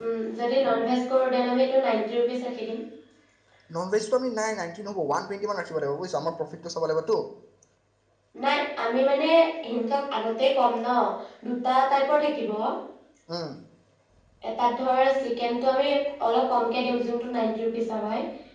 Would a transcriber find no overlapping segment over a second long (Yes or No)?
Yes